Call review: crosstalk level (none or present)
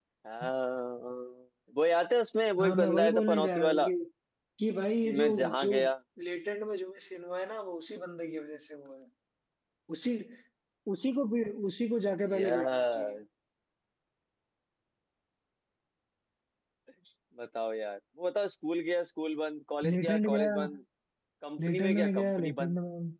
present